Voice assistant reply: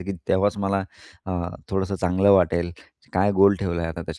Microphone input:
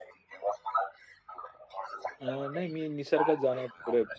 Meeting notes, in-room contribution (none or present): present